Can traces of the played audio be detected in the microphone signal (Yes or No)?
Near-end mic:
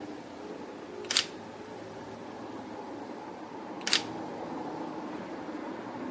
No